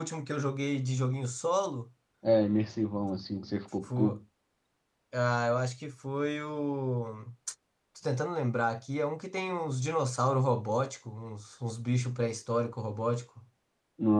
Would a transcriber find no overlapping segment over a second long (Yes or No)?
Yes